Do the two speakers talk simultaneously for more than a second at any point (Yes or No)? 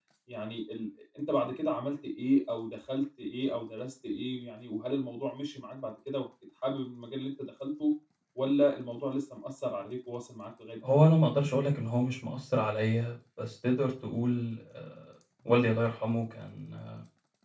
No